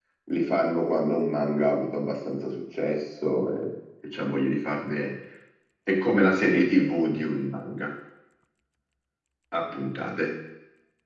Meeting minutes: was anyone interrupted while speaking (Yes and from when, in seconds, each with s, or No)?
No